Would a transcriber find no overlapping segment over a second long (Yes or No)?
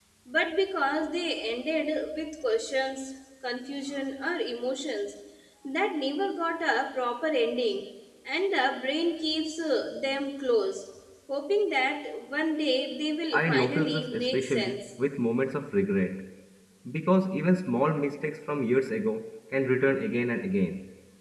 No